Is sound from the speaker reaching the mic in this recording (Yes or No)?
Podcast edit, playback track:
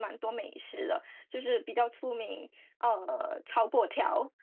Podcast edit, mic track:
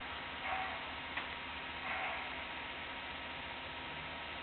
No